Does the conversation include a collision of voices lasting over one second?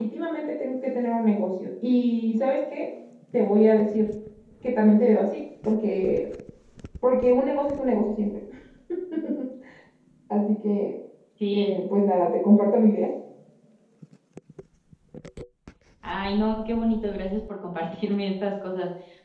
No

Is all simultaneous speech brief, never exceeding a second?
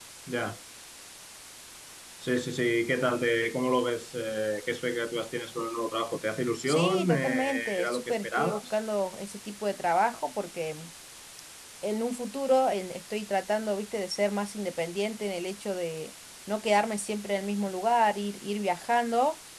No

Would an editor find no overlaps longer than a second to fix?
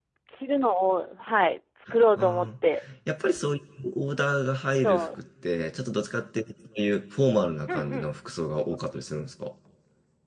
Yes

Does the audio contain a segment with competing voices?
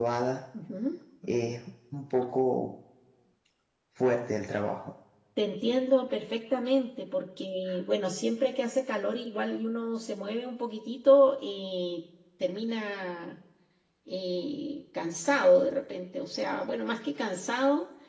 No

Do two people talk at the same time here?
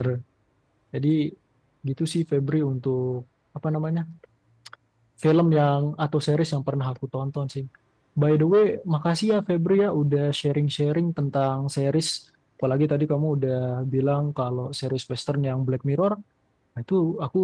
No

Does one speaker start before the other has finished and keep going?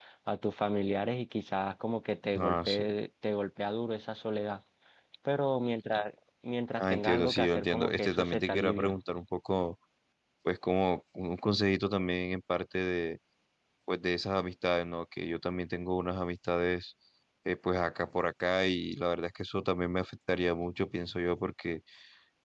Yes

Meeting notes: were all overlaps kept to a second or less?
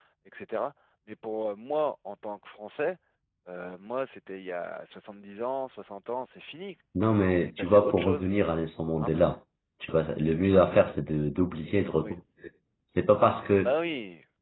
No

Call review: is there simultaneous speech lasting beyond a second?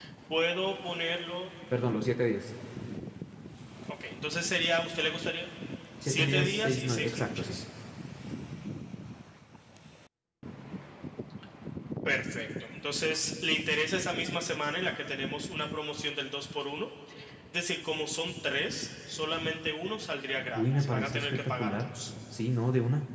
Yes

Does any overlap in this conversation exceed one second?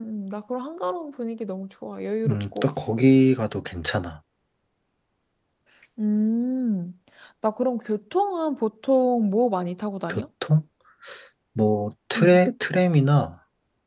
No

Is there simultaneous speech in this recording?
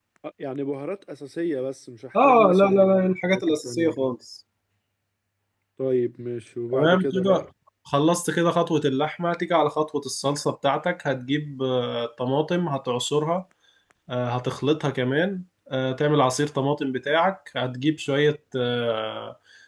Yes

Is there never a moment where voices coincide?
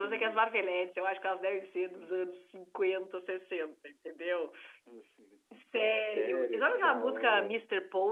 No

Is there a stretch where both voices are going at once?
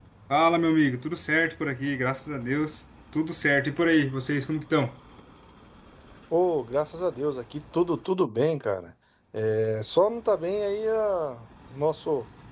No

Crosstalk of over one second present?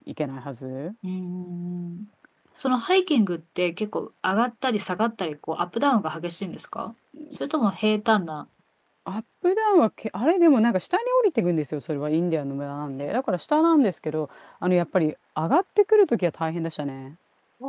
No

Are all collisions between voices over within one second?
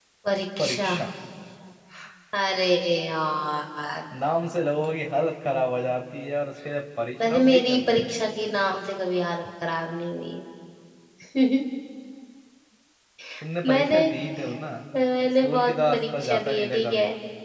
No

